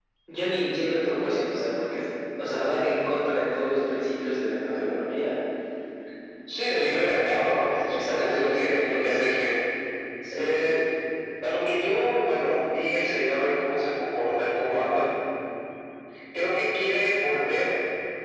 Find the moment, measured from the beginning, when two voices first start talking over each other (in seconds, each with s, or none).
7.9 s